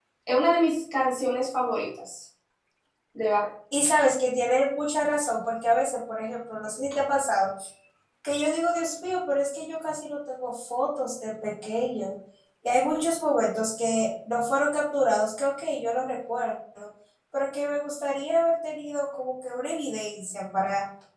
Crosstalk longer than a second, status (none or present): none